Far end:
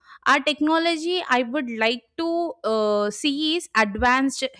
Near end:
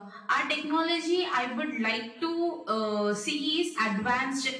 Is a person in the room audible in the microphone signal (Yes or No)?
No